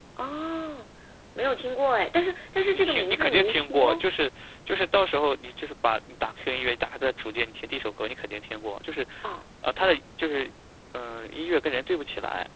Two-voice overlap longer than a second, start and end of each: 2.7-4.0

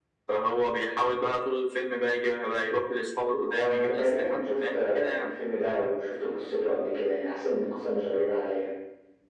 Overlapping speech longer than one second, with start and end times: 3.4-5.3

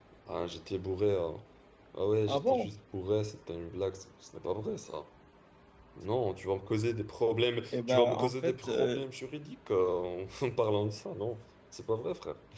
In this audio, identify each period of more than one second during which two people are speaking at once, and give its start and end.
7.7-9.0

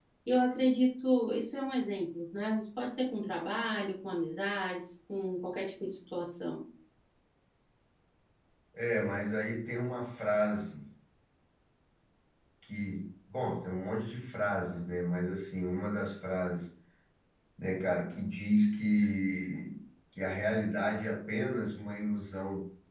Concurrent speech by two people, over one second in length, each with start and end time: none

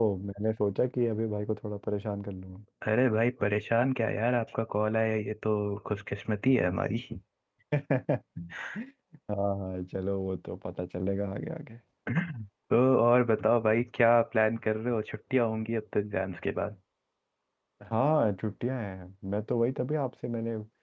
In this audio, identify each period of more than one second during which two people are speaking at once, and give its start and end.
none

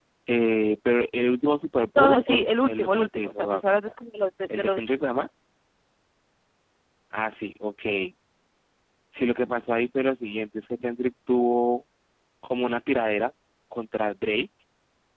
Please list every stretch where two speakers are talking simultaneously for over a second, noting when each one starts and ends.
2.0-4.0

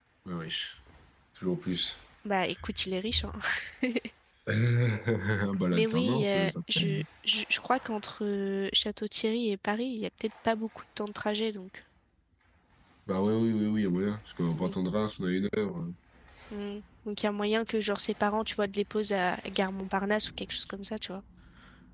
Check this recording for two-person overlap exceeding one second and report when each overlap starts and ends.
5.7-7.0

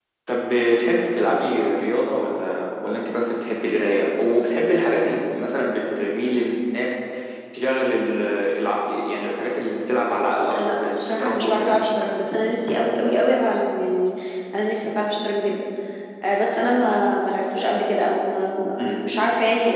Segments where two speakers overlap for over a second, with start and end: 10.5-11.7

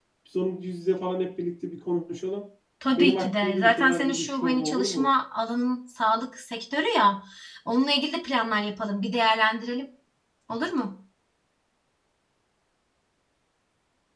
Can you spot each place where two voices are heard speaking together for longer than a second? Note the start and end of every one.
3.0-5.1

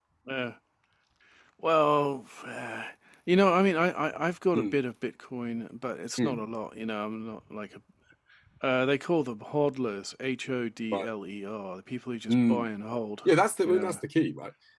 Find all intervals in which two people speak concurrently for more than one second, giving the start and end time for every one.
none

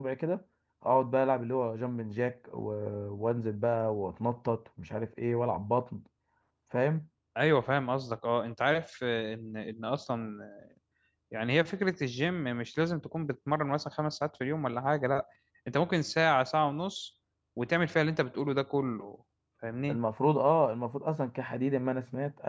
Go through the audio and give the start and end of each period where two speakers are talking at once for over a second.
none

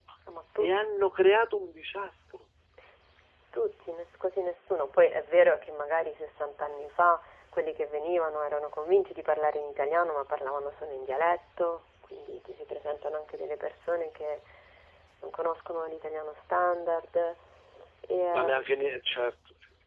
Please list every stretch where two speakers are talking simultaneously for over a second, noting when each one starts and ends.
none

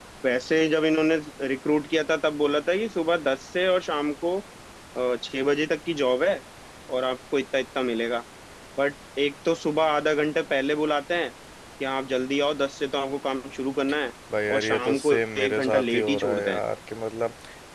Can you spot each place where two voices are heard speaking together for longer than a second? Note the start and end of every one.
14.5-16.6

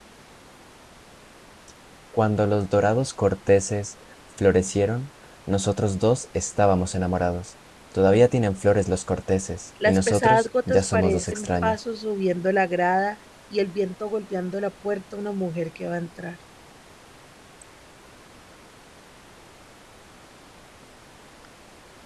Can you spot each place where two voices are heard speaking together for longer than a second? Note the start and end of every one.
9.8-11.8

